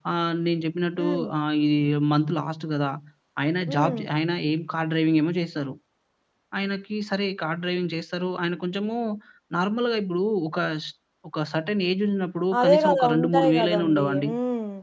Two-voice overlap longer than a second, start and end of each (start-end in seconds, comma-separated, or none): 12.6-14.3